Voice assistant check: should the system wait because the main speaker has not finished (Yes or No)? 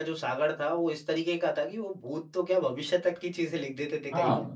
No